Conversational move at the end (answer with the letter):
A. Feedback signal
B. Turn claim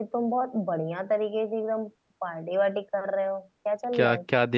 B